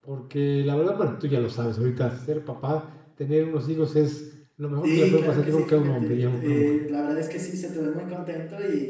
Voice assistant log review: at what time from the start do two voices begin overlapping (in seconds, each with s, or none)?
4.8 s